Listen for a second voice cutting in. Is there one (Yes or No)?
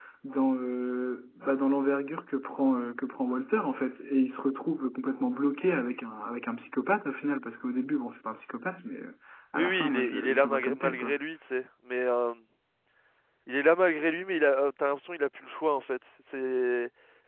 Yes